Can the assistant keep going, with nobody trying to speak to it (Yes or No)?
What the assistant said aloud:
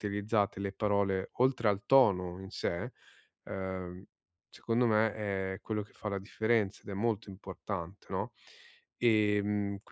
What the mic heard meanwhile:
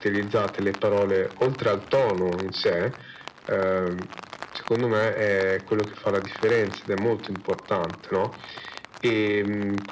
Yes